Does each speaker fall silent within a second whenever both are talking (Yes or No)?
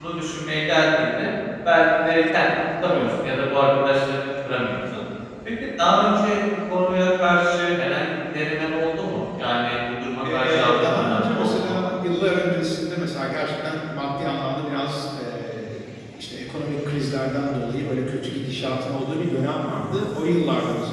No